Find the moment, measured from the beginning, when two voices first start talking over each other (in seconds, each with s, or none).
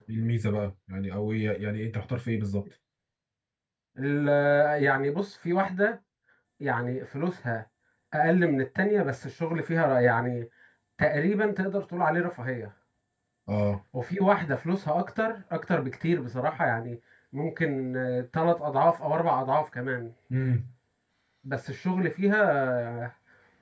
none